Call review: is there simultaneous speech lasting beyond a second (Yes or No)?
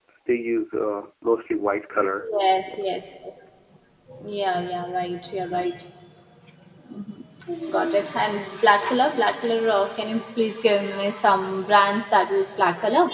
No